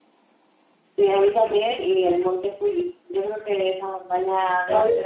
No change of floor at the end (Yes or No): No